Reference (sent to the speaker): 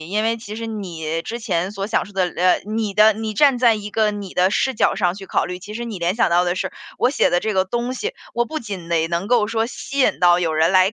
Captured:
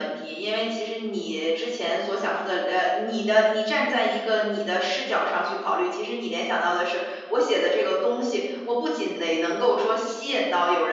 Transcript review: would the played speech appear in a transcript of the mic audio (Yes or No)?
Yes